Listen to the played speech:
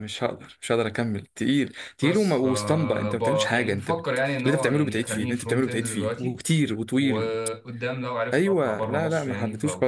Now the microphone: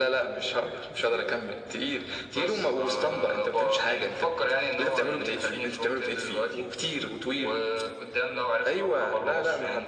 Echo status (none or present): present